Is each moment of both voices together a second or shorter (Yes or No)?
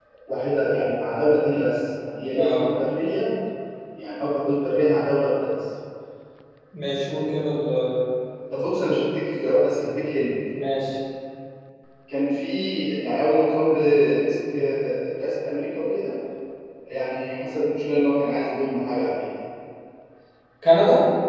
Yes